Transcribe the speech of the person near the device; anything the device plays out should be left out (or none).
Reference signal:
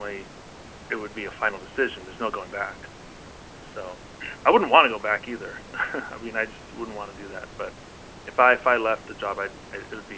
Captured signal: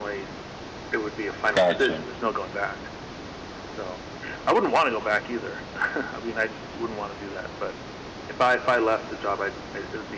gotcha.